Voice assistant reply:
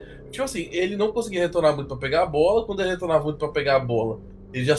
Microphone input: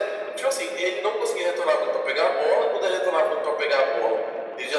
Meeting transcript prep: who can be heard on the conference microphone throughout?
echo only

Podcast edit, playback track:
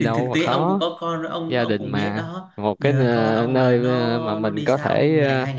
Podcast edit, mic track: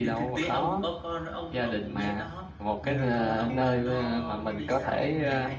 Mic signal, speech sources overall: echo only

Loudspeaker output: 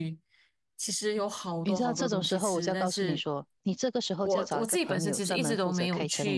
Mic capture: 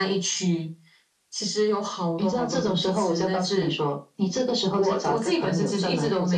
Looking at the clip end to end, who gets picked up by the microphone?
echo only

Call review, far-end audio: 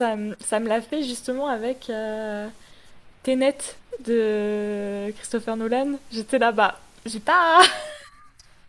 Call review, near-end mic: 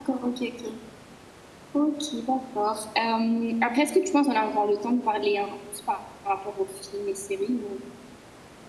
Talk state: user only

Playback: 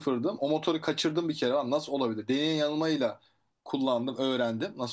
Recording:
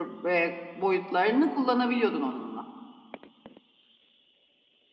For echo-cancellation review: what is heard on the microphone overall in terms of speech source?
user only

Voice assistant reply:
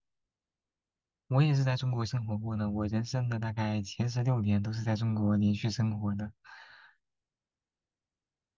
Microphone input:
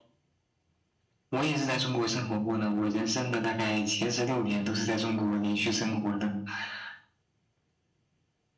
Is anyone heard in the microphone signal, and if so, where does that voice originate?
echo only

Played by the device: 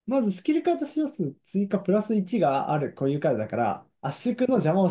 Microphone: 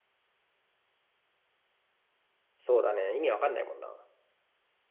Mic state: user only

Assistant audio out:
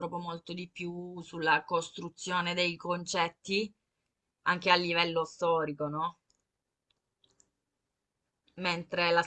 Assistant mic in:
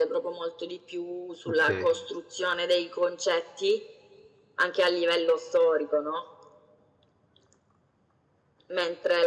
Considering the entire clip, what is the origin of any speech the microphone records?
both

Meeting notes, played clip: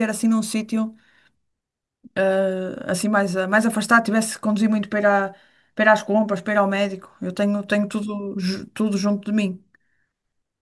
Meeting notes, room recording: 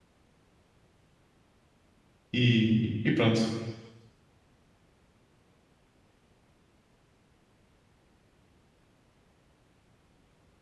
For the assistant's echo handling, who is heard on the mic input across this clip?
user only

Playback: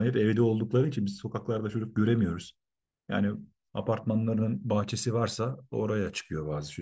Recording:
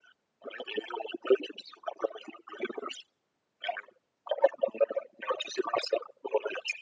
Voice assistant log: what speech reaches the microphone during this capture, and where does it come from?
echo only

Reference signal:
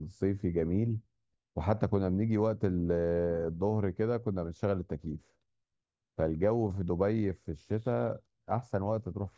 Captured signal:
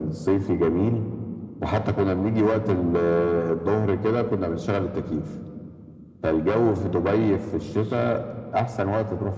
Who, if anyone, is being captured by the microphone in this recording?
echo only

